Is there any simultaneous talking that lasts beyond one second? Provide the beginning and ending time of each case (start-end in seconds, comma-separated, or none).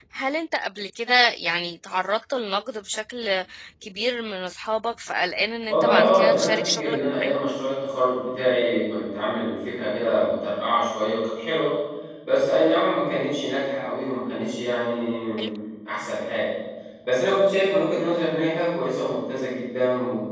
5.7-7.4